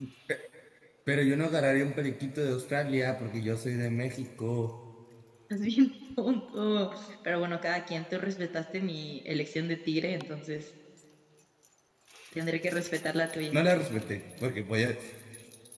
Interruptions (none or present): none